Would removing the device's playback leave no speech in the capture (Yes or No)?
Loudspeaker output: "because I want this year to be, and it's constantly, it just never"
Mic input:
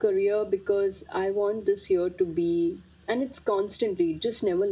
Yes